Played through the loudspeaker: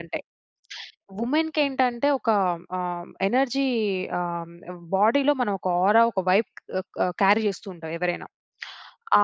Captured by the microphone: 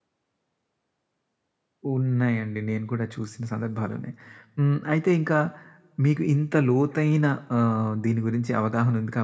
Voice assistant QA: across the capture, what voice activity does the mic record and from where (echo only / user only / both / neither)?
user only